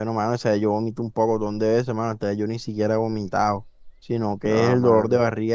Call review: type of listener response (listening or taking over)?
listening